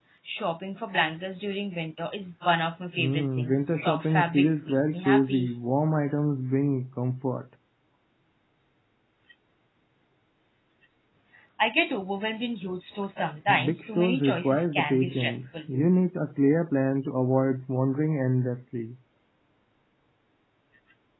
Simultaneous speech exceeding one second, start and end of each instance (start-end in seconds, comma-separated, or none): 3.0-5.5, 13.6-15.5